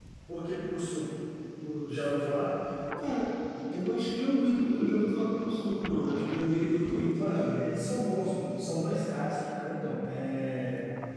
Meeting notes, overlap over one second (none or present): none